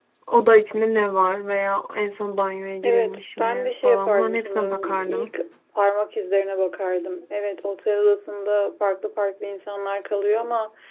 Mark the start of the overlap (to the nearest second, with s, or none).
3 s